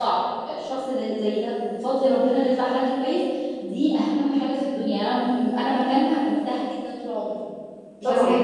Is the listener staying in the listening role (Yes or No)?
No